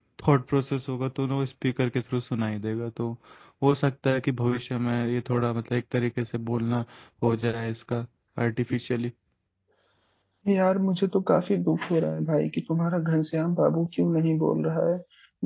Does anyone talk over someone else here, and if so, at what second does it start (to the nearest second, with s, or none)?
none